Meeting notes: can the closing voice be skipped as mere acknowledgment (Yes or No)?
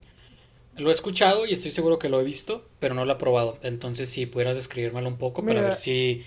No